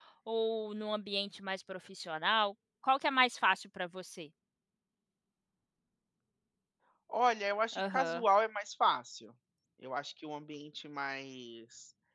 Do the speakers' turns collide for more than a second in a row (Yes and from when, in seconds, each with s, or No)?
No